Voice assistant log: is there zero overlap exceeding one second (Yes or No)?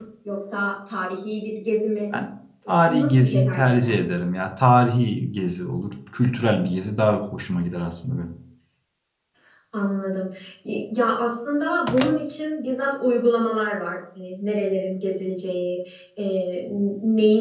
No